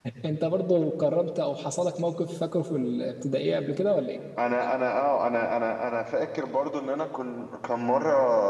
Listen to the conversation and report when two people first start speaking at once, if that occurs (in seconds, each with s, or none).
none